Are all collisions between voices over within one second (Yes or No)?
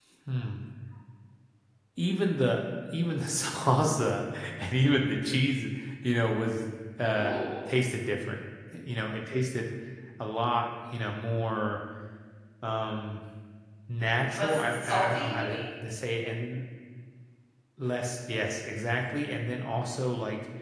No